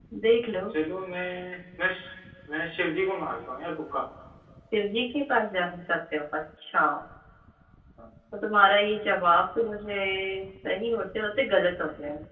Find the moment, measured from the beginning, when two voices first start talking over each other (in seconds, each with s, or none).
none